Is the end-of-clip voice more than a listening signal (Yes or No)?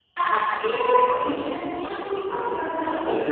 No